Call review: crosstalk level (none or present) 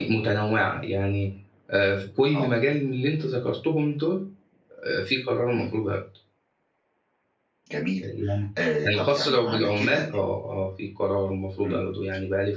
present